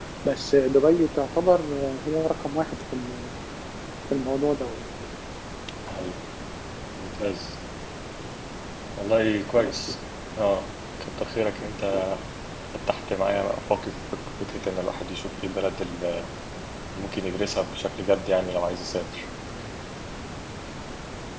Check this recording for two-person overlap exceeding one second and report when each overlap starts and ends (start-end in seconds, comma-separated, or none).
none